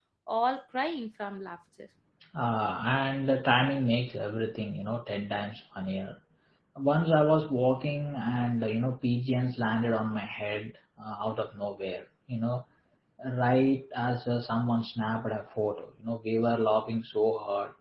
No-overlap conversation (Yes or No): Yes